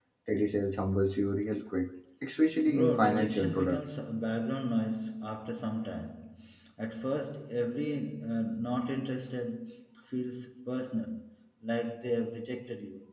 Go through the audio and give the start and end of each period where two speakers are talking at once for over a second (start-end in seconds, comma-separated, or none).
2.7-3.9